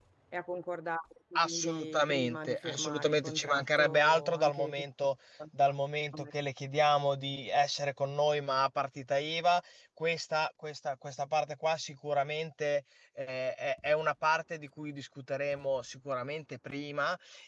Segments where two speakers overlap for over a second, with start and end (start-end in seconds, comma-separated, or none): 1.4-4.8